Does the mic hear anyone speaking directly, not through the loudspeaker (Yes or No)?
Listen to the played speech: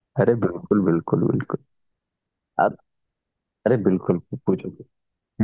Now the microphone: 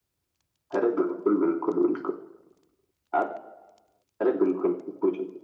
No